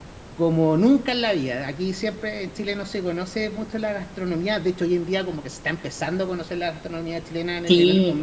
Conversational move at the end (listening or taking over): taking over